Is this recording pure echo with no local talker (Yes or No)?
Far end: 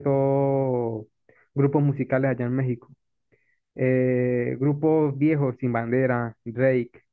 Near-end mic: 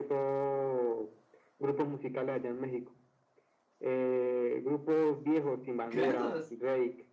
No